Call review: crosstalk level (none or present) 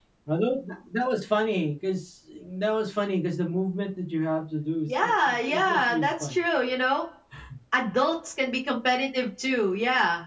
present